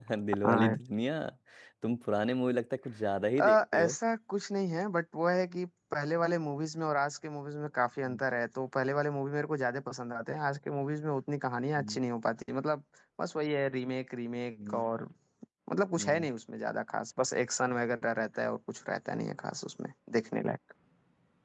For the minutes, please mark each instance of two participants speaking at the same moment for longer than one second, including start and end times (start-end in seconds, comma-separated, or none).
none